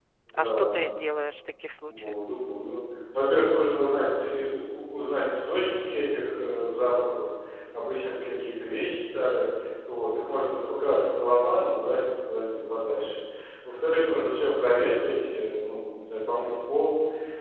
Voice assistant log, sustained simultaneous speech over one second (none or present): none